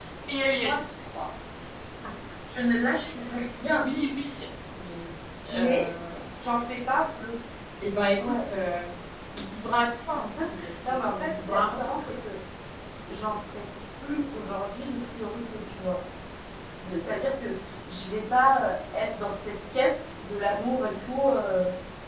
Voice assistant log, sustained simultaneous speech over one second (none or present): present